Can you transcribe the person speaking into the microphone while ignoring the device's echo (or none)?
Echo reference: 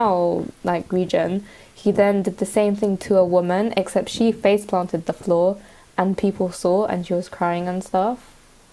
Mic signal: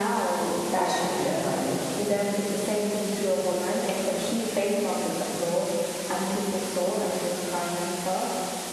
that should be fine.